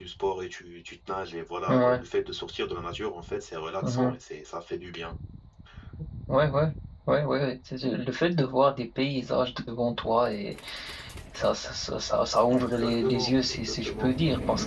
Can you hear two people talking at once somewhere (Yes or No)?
Yes